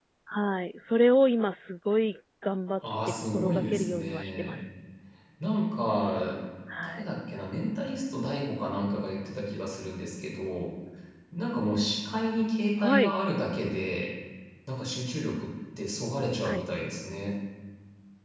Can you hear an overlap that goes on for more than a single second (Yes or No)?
Yes